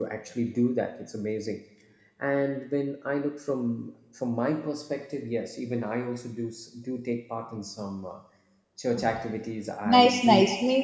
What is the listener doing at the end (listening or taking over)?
taking over